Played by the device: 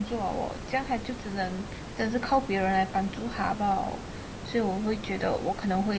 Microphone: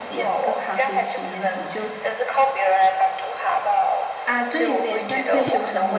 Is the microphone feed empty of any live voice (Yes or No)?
No